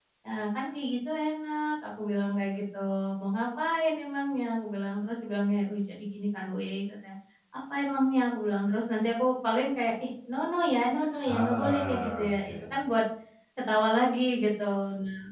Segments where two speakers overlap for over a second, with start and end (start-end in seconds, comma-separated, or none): 11.3-12.7